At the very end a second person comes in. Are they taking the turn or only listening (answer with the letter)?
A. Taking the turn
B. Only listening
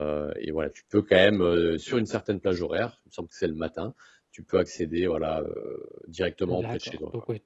A